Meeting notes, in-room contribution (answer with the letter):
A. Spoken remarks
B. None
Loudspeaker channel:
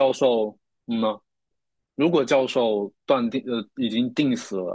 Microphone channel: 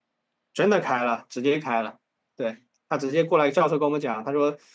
A